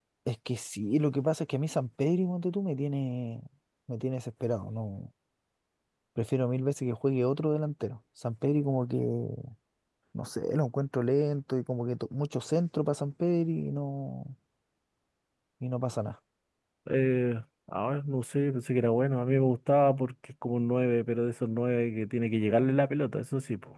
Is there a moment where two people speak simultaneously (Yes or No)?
No